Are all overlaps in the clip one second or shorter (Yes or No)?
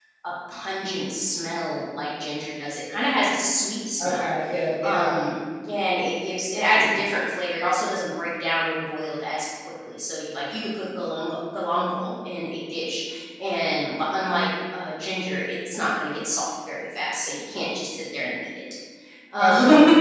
Yes